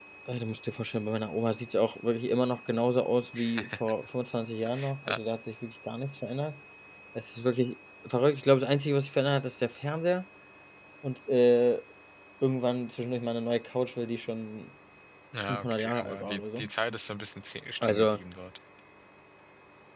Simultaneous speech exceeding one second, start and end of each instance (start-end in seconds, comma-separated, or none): 15.4-16.7